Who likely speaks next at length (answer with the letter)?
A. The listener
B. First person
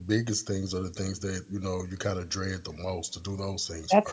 A